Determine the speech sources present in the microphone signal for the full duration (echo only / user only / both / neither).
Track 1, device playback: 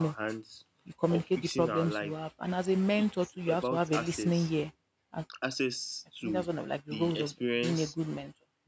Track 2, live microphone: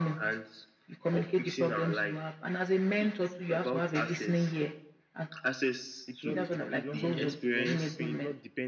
both